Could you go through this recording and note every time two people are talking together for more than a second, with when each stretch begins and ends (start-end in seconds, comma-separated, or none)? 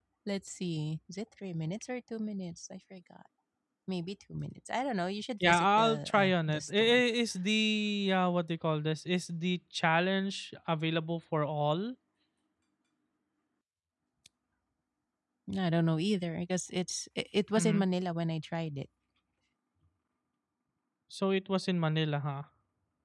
5.4-7.0